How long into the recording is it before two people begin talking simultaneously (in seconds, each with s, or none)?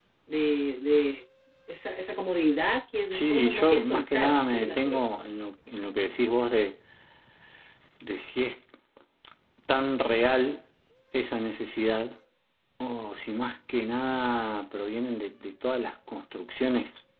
3.1 s